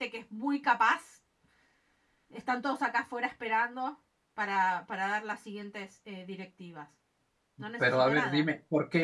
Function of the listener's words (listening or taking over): taking over